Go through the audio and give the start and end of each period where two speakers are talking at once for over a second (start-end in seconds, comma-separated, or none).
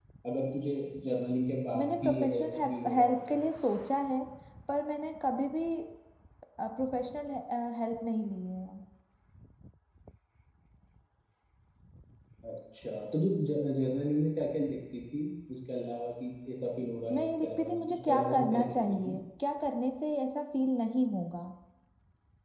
1.8-3.4, 17.1-19.1